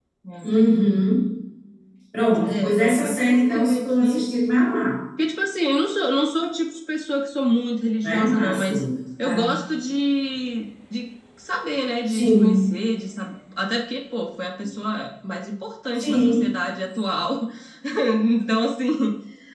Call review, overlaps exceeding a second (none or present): present